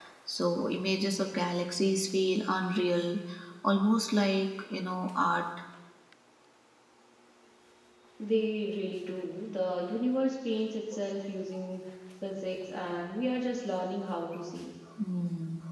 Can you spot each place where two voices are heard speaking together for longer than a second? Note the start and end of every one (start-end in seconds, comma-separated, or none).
none